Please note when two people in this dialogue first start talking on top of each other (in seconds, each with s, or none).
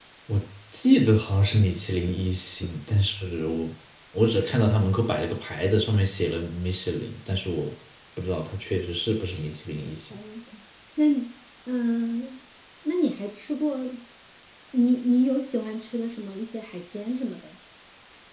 none